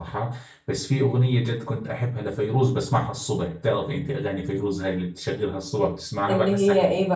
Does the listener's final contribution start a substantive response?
Yes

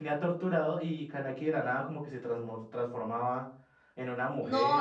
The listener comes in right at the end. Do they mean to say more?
Yes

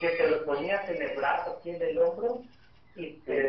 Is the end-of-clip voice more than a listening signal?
No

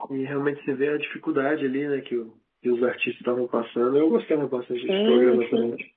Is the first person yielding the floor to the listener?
Yes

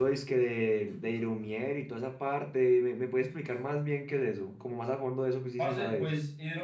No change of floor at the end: No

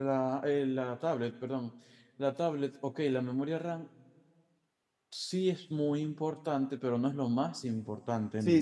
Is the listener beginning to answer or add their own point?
Yes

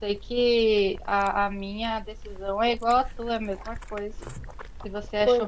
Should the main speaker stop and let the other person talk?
No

